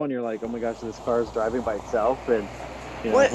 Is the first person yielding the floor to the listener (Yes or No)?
Yes